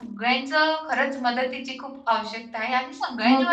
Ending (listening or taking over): taking over